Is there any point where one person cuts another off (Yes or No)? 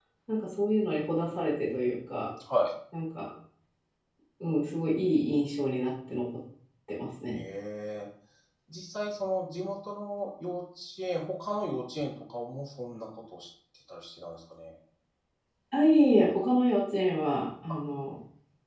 No